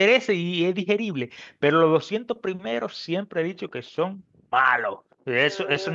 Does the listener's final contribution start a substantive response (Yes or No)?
No